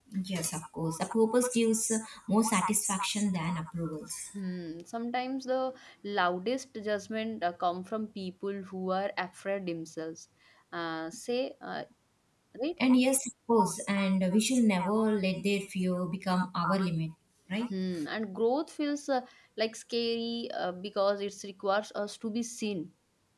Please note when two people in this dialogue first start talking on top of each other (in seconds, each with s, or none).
none